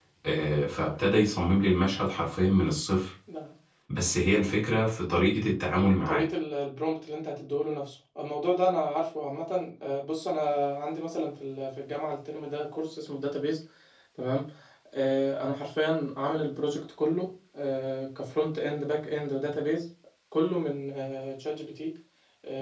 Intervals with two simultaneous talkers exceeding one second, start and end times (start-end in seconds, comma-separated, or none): none